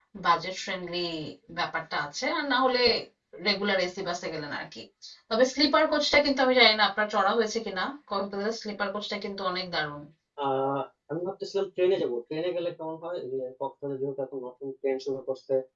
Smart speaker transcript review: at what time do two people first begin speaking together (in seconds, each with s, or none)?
none